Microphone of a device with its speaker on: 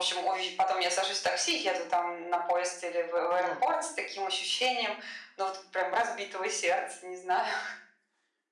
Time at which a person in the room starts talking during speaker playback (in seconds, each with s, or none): 3.4 s